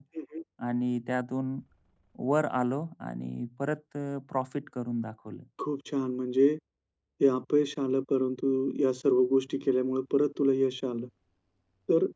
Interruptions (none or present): none